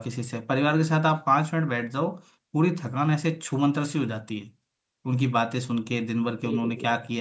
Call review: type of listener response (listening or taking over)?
listening